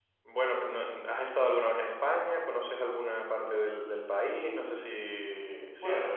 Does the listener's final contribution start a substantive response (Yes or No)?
Yes